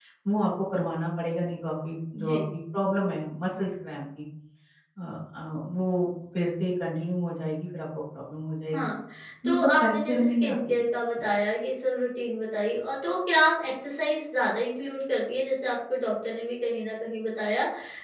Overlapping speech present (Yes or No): Yes